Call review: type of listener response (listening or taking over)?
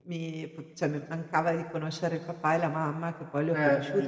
listening